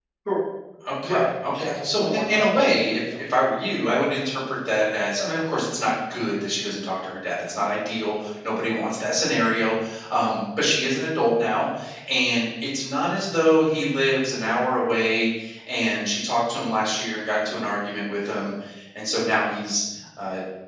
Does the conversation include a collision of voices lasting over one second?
Yes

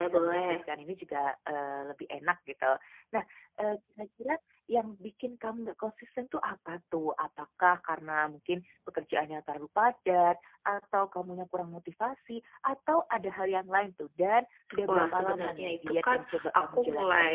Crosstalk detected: Yes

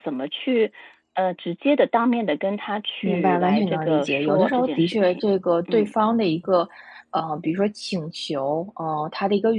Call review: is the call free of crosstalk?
No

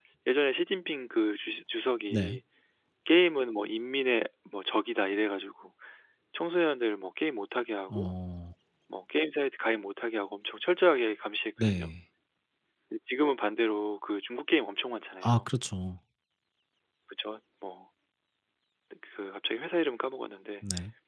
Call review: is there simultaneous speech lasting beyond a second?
No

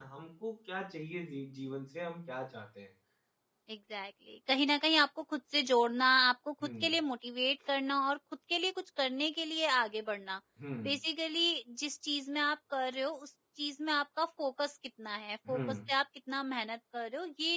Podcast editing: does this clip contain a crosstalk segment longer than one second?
No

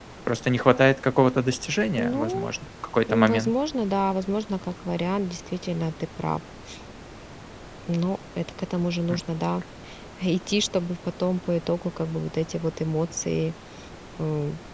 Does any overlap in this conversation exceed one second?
No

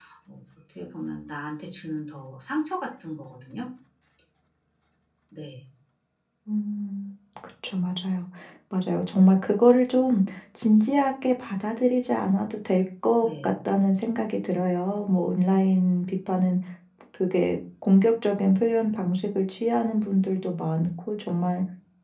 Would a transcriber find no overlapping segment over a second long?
Yes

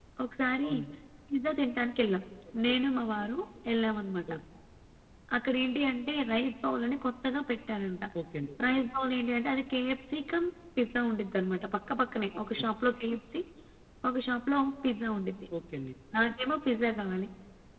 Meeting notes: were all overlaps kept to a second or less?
Yes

